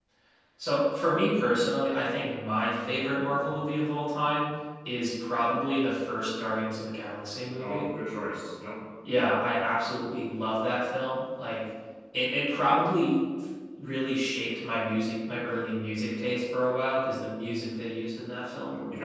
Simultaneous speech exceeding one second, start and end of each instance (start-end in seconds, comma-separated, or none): none